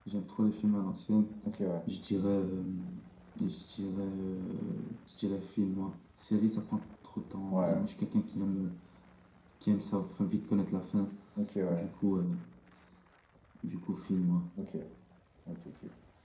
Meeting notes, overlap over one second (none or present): none